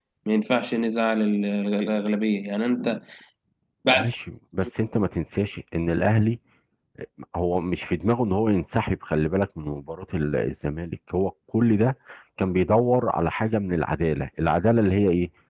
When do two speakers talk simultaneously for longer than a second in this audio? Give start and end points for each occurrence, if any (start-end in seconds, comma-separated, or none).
none